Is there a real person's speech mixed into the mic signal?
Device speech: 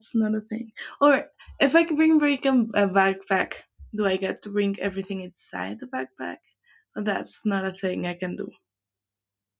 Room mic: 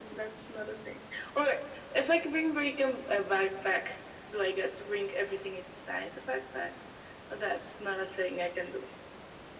No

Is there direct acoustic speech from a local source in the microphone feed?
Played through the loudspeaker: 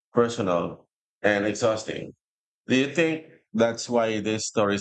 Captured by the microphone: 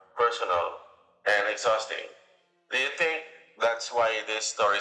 No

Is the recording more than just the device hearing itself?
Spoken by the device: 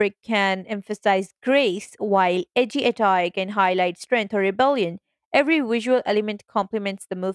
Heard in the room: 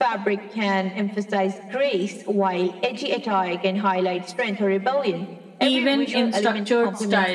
Yes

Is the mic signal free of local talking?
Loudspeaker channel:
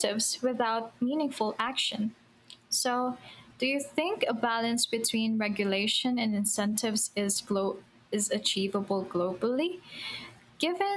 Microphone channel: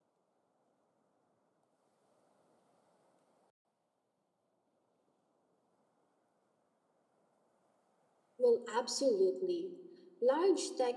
No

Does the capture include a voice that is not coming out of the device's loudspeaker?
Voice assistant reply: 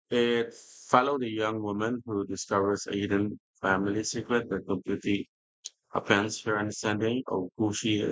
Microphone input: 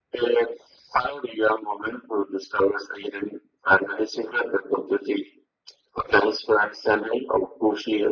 No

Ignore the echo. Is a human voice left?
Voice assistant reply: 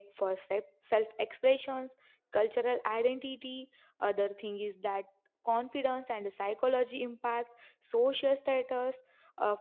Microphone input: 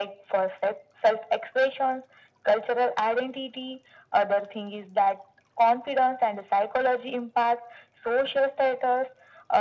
No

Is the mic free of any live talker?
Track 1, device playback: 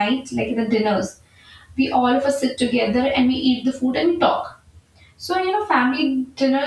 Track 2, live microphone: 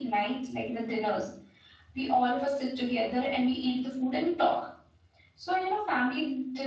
Yes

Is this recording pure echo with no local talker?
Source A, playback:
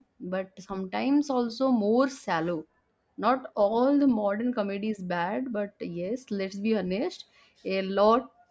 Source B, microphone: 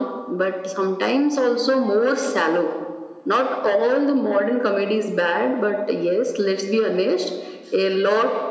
Yes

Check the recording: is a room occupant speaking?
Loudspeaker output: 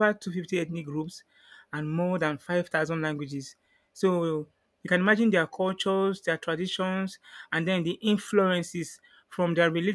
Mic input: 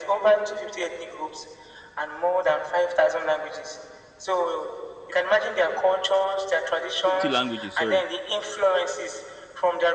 Yes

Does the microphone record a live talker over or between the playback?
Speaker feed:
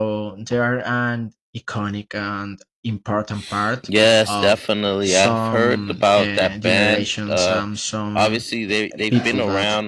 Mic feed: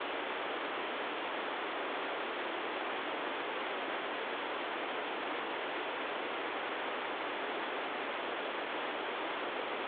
No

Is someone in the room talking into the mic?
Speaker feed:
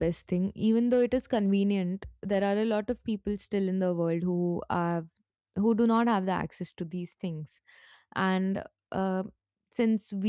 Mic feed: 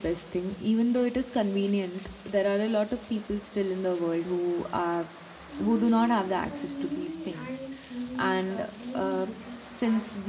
Yes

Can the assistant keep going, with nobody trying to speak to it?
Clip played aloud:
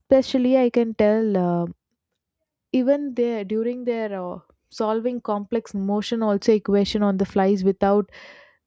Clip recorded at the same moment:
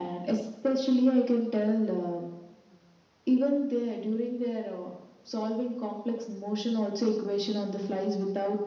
Yes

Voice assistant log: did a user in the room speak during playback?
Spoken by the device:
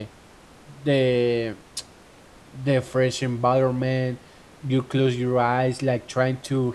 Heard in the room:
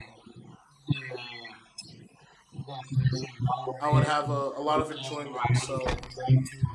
Yes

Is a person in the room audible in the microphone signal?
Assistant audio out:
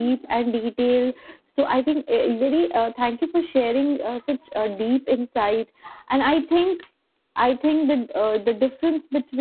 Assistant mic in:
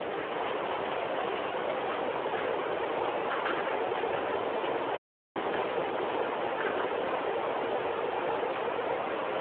No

